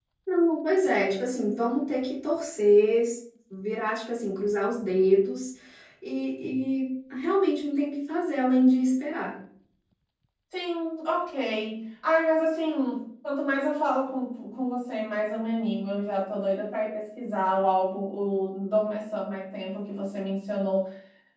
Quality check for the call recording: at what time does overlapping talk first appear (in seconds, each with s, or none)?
none